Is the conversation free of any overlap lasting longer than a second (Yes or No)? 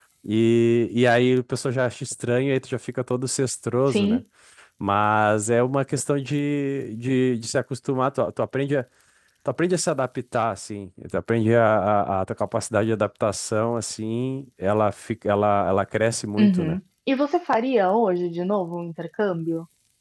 Yes